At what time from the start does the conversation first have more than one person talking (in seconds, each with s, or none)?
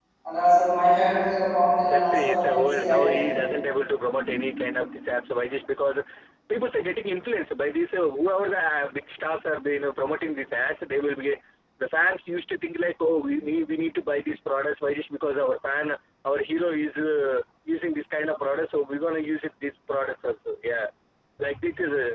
1.9 s